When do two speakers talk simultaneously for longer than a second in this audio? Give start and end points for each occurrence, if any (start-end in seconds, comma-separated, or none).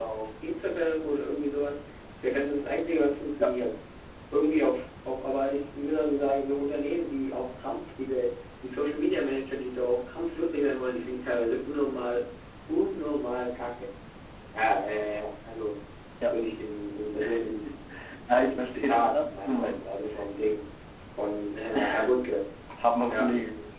18.3-19.7